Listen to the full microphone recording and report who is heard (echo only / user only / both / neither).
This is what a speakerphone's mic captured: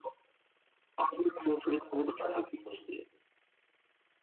echo only